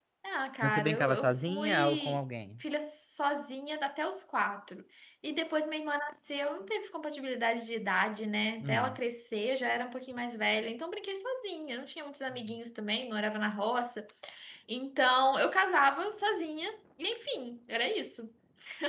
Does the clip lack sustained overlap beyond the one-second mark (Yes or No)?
No